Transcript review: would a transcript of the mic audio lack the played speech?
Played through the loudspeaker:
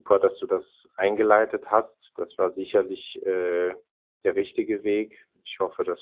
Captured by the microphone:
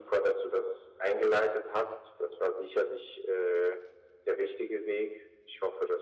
No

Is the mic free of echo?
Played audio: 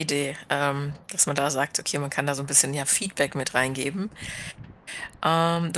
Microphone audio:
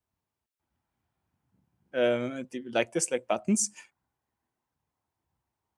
Yes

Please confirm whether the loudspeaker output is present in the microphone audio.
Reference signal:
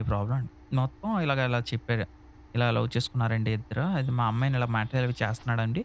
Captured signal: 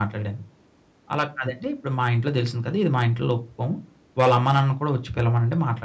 No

